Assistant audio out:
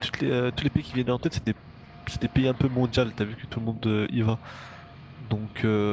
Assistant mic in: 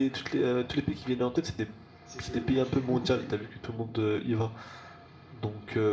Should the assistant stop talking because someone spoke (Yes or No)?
Yes